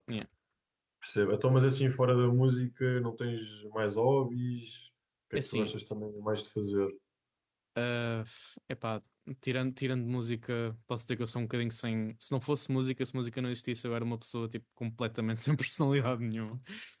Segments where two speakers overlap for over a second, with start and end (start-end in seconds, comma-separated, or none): none